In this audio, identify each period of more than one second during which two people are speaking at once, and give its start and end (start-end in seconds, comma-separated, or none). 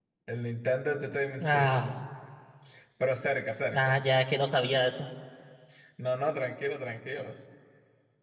none